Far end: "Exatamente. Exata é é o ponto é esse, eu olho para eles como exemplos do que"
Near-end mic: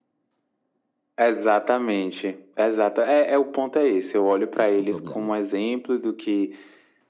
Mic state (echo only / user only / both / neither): both